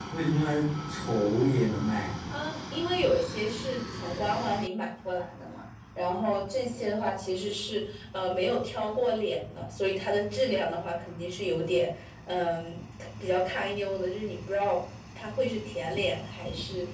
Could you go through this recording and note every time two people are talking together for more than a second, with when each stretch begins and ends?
none

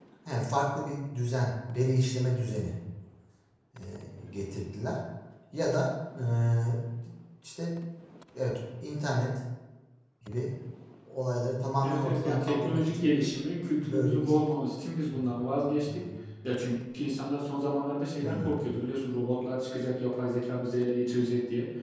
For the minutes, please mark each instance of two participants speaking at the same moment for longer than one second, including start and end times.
11.8-13.1

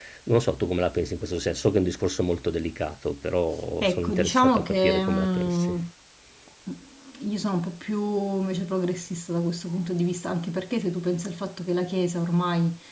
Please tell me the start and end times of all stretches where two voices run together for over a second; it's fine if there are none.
3.8-5.8

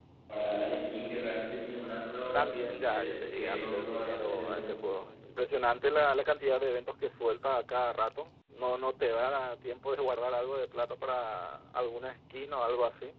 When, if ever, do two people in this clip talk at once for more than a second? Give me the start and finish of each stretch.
2.3-4.7

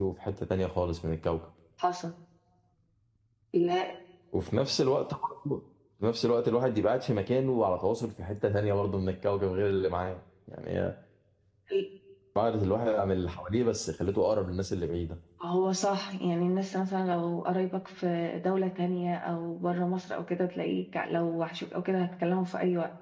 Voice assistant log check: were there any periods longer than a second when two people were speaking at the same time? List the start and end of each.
none

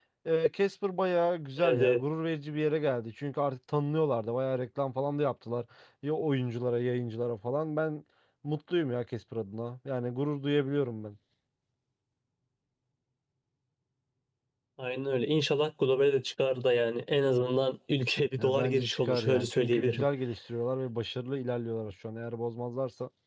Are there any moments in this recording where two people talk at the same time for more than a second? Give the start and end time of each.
18.4-20.1

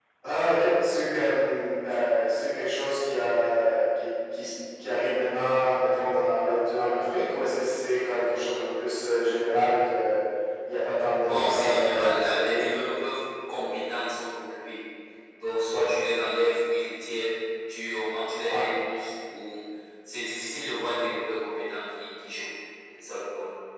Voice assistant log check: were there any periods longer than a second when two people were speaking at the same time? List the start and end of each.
11.2-12.8

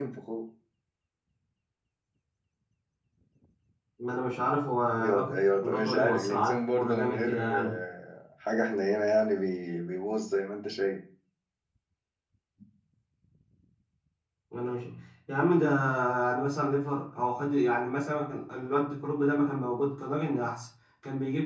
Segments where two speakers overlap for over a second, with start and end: 5.0-7.8

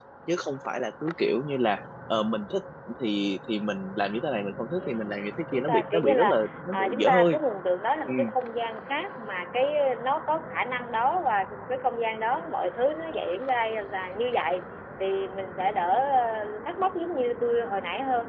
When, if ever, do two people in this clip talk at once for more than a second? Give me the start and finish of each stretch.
5.5-7.4

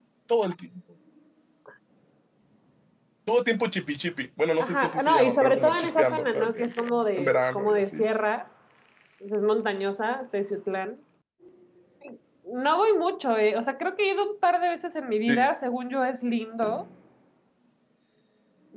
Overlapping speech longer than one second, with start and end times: 4.6-8.1

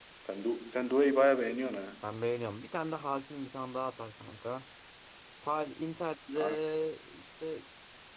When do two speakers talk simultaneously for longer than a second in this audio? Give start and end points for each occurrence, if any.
none

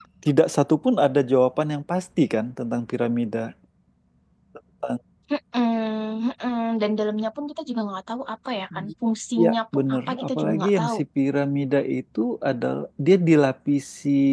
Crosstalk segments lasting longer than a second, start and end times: 9.4-11.0

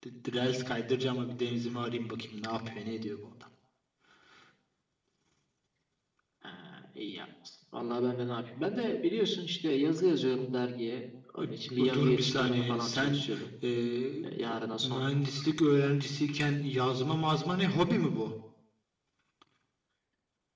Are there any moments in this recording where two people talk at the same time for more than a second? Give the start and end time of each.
11.9-13.2

